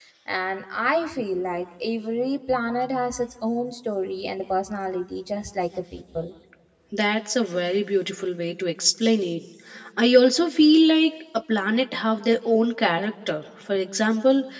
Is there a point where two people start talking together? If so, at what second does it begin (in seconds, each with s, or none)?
none